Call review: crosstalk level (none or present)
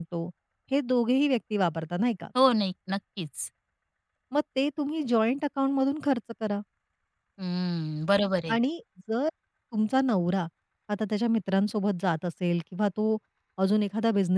none